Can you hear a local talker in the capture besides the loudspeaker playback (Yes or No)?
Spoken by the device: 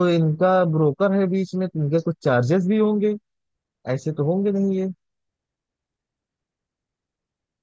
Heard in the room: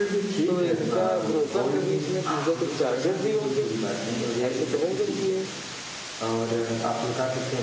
Yes